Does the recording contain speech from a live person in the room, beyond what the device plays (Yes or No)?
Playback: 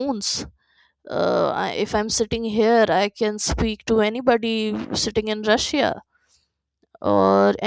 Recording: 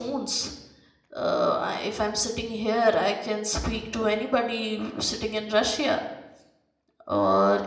No